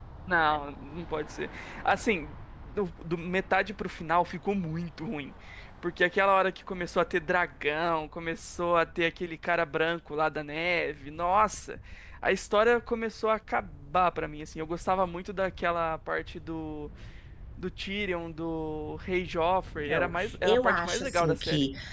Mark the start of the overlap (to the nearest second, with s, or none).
20 s